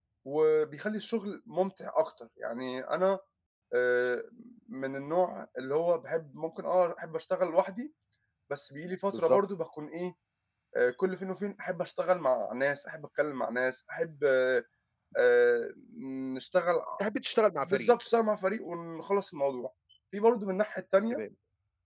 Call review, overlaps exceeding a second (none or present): none